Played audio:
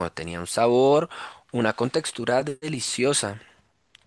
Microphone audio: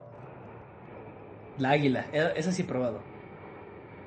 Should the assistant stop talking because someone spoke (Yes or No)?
Yes